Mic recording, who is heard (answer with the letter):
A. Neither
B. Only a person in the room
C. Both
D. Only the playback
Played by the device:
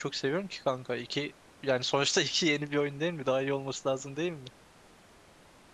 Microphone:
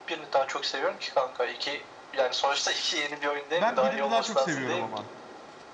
C